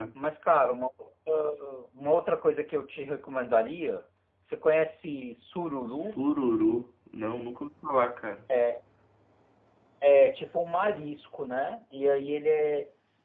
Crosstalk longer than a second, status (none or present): none